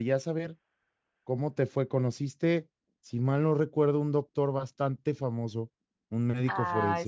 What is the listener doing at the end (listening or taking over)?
taking over